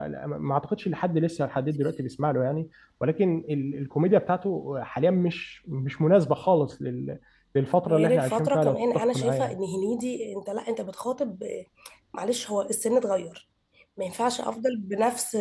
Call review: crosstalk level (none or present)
present